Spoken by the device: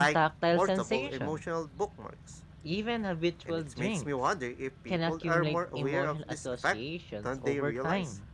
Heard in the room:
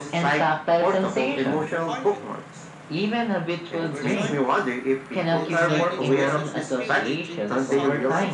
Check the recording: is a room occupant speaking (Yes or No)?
Yes